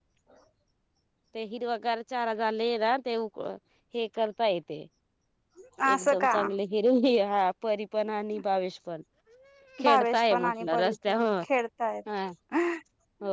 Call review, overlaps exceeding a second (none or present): present